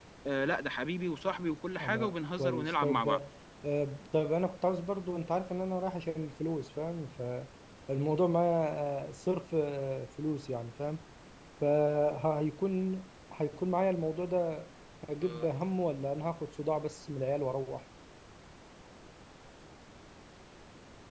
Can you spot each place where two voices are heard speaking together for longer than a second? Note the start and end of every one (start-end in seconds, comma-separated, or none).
1.8-3.1